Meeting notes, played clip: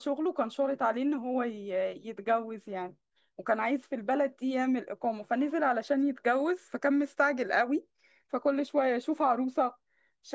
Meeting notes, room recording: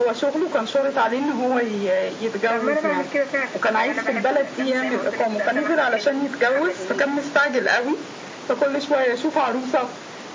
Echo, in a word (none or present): present